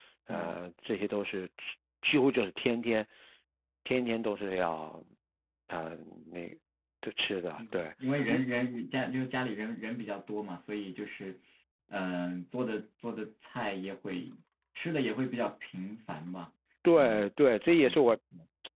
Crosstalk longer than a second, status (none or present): none